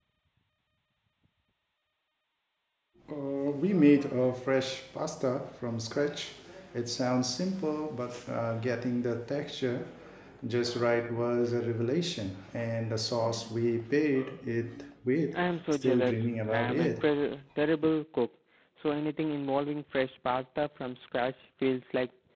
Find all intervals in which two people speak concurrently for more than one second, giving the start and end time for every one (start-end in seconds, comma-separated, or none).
15.3-17.1